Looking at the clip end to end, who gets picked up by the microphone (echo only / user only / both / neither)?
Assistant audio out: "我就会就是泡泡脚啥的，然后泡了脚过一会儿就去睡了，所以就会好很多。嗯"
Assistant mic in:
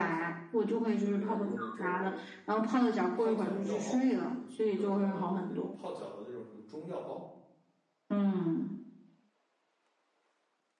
both